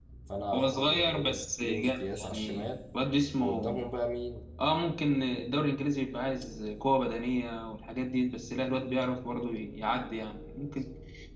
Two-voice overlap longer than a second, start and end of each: 0.5-2.7

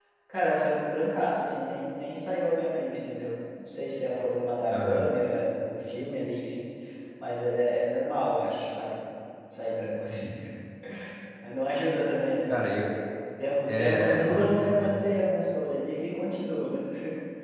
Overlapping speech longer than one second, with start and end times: 13.7-15.0

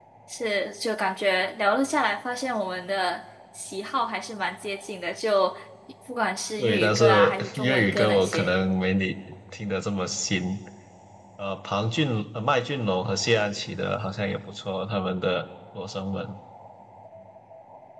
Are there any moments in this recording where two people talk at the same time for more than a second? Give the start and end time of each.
6.6-8.5

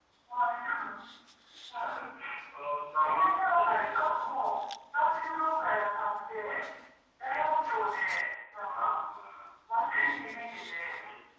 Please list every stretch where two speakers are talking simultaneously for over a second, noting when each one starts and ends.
3.0-4.6

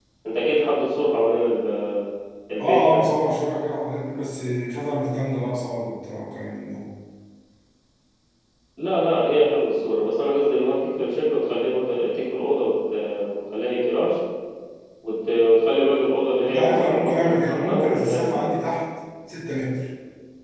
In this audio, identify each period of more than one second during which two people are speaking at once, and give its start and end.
16.4-18.6

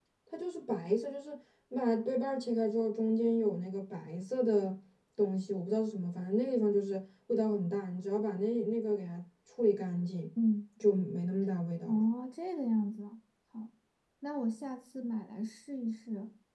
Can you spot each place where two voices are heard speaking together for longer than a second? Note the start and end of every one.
none

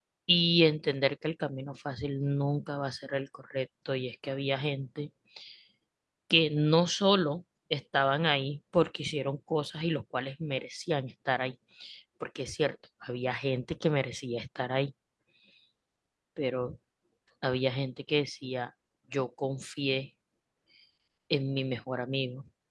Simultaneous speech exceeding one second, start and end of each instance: none

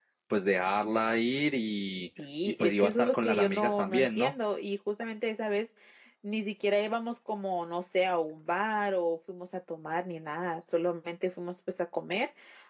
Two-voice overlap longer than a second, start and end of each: 2.4-4.3

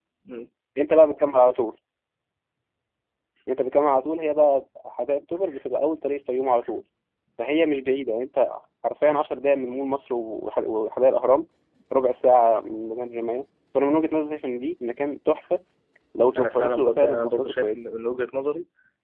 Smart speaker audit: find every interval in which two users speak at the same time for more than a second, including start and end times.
16.4-17.8

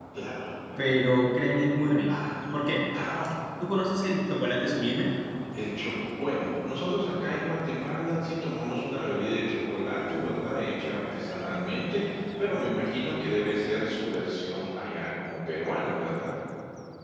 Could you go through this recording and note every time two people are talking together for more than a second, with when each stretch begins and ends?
none

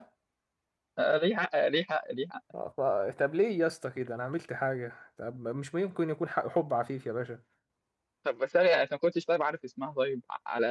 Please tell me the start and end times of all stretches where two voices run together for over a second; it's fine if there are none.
none

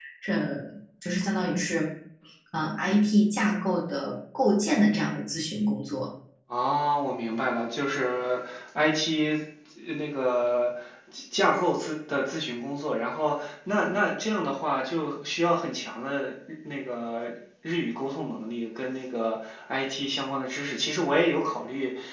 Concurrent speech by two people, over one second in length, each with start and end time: none

